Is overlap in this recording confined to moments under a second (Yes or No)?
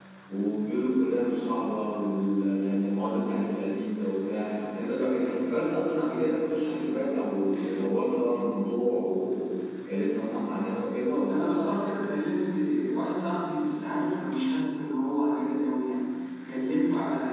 Yes